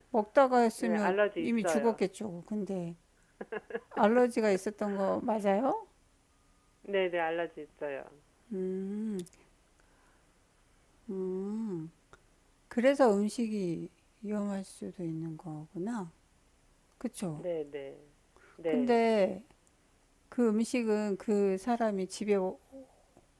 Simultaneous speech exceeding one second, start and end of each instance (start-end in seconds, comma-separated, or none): 0.8-2.0